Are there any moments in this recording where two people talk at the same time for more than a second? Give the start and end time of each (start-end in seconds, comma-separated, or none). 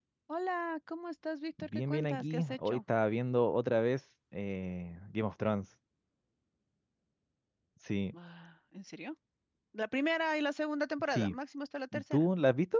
1.6-2.8